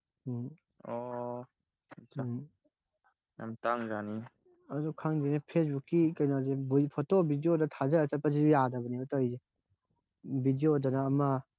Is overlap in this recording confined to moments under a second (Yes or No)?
Yes